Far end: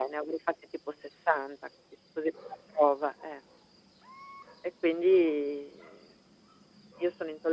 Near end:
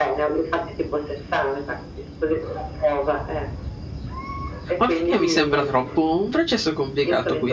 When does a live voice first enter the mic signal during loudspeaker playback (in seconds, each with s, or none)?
4.8 s